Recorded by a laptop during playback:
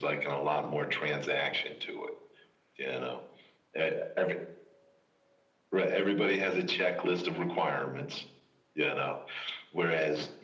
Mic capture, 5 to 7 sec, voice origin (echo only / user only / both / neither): echo only